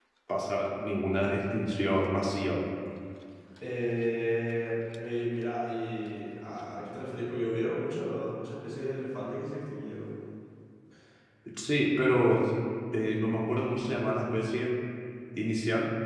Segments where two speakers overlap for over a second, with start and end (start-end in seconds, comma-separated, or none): none